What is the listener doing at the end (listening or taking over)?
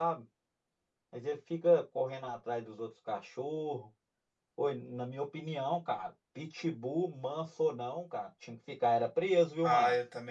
taking over